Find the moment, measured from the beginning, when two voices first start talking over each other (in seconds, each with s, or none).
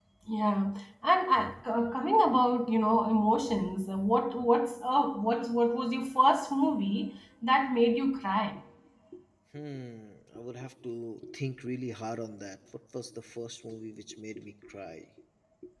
none